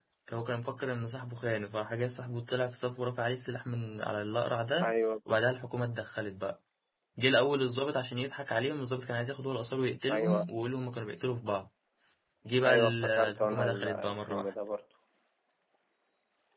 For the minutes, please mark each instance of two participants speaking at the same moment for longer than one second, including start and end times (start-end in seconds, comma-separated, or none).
12.6-14.5